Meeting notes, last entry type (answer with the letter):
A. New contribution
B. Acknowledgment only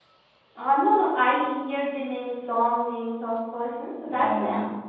A